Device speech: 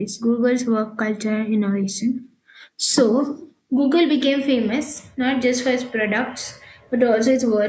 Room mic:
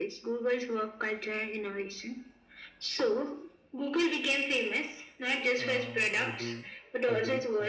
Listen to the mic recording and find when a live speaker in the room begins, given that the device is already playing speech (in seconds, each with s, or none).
5.6 s